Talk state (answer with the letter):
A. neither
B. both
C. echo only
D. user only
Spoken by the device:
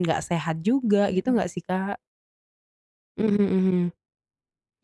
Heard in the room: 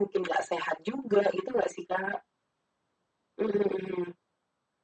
C